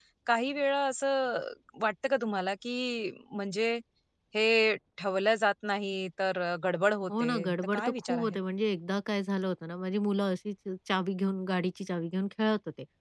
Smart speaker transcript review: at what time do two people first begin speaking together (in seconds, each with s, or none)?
7.1 s